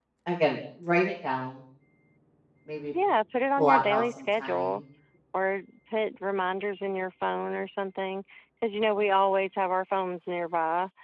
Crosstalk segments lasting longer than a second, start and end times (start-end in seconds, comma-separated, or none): 3.6-4.8